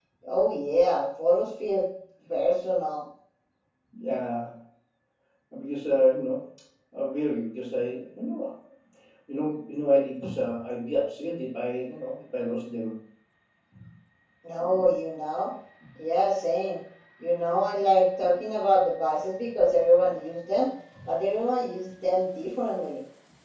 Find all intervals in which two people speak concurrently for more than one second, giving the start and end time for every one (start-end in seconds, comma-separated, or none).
none